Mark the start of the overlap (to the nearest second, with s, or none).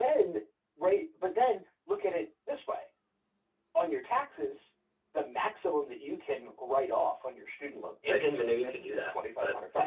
8 s